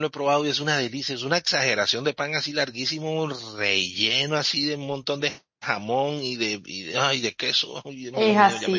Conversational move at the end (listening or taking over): taking over